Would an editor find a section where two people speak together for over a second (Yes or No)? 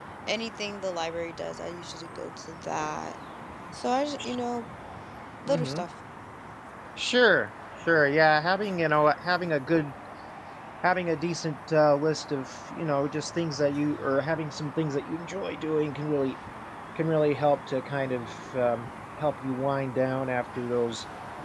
No